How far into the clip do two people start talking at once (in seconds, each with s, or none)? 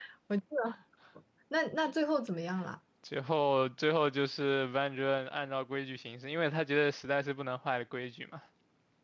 none